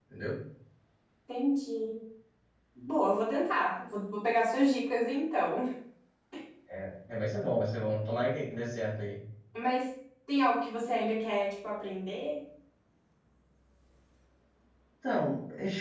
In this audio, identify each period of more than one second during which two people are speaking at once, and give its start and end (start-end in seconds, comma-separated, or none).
none